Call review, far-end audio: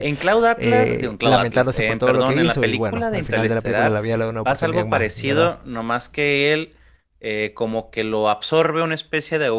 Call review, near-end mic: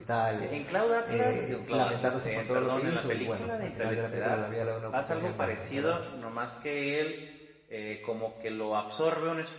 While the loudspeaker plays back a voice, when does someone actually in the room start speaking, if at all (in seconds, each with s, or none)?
none